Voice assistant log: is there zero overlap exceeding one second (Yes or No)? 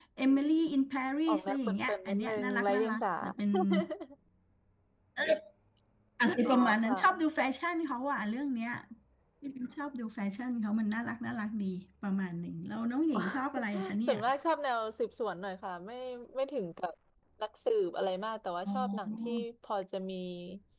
No